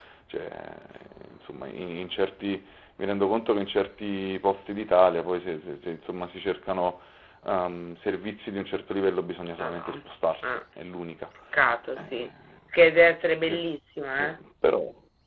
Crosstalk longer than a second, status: none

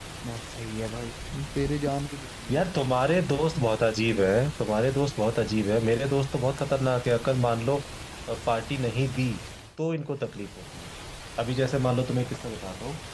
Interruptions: none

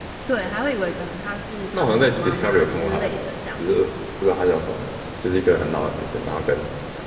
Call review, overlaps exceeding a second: present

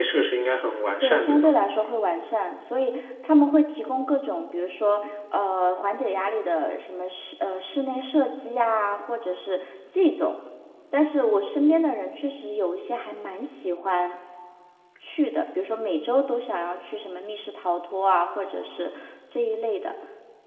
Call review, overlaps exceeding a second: none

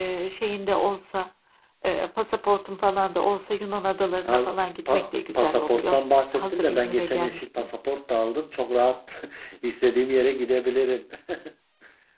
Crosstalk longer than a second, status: present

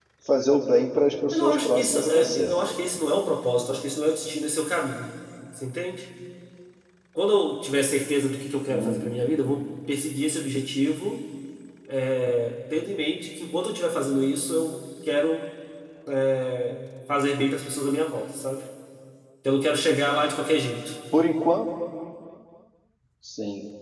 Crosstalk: present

